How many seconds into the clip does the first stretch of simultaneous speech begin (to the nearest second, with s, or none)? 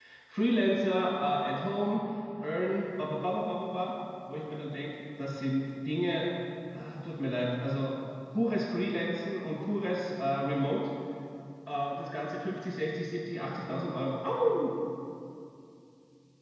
none